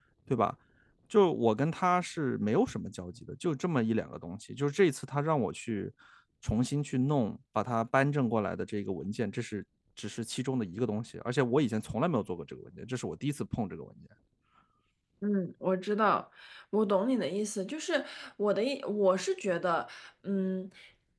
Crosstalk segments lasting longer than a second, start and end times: none

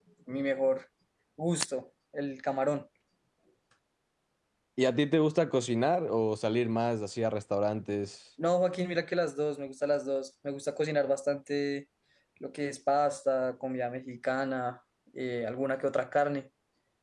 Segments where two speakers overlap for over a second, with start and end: none

